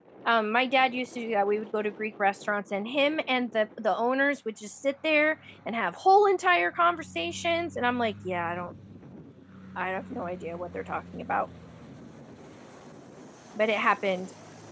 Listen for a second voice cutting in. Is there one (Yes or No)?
No